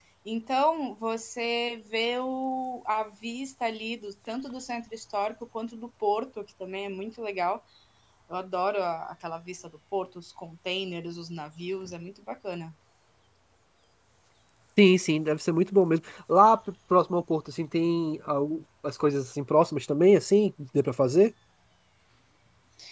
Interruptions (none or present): none